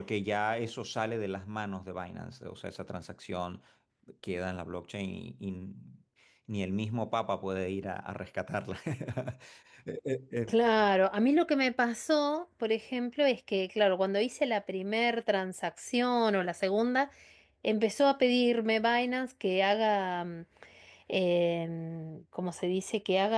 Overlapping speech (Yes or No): No